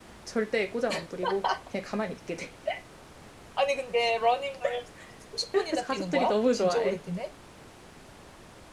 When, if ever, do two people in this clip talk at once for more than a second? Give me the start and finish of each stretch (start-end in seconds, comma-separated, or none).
5.6-7.0